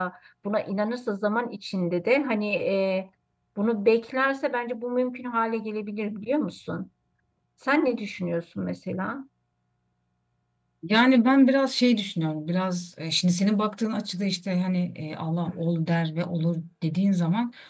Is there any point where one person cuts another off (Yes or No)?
No